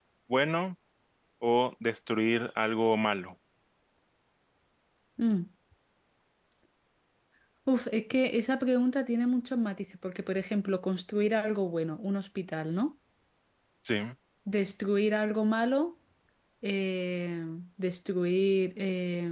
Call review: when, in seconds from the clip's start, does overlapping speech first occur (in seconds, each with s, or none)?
none